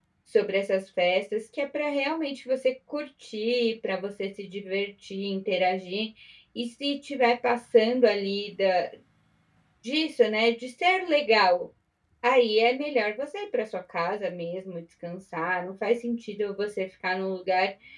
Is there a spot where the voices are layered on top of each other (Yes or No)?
No